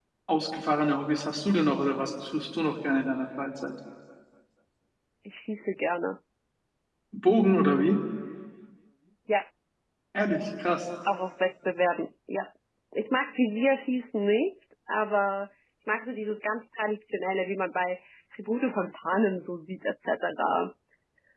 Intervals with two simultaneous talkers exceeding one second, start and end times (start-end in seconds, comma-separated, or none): none